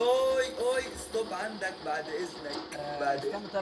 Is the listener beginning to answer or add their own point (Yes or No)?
Yes